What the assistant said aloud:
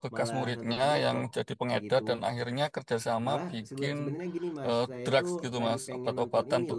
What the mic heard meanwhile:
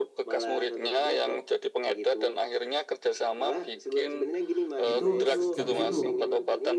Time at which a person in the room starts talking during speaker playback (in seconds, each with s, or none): 4.9 s